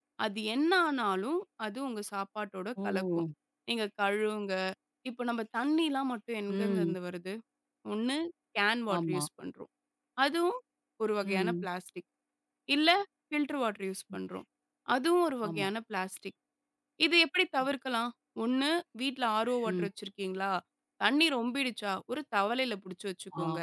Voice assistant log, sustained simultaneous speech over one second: none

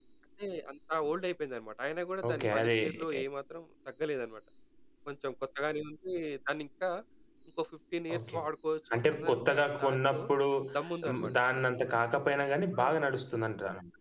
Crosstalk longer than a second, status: present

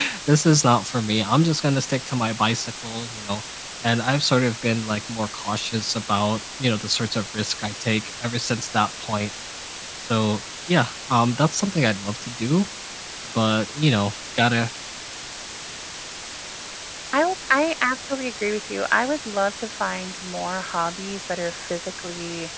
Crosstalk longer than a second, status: none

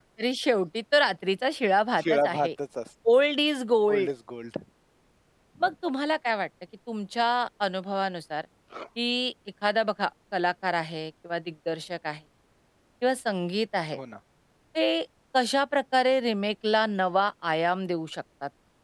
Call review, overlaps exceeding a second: none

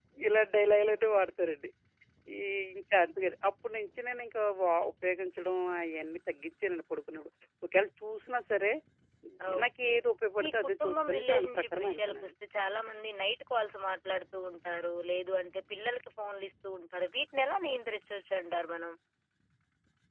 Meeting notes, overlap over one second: present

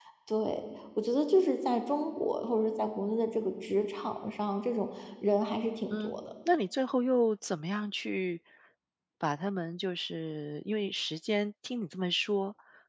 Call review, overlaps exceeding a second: none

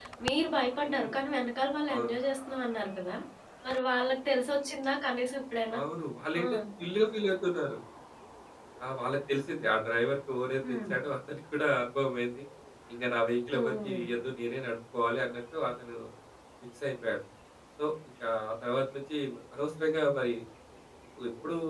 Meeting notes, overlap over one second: none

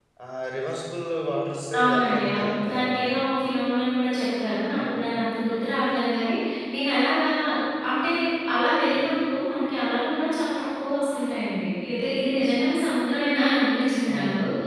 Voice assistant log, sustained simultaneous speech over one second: present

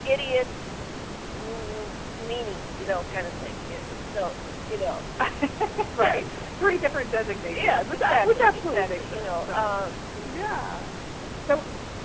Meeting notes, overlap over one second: present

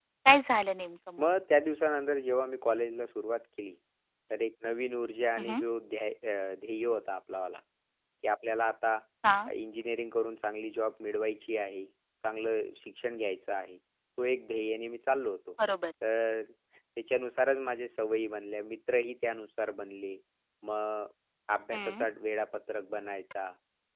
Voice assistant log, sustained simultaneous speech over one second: none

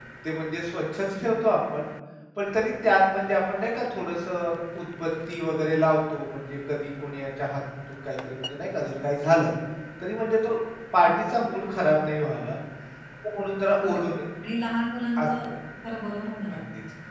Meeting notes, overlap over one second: none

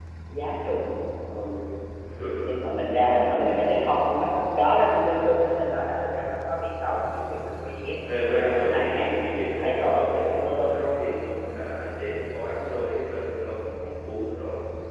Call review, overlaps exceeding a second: present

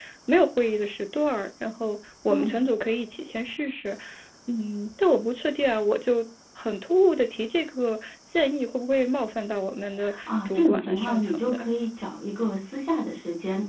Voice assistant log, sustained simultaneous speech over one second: present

